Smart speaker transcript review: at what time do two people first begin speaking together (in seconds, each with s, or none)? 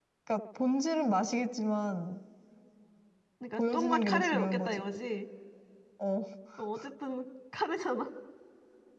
3.5 s